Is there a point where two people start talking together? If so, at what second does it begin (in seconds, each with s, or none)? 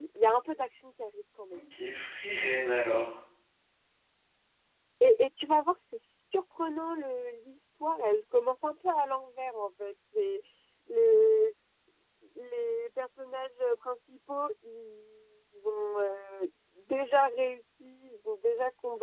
none